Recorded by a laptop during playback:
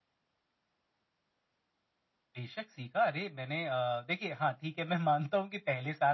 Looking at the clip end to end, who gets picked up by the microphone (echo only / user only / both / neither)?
echo only